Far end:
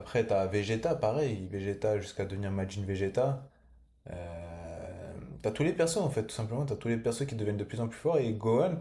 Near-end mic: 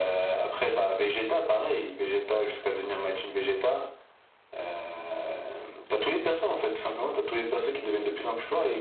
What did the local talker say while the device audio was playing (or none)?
none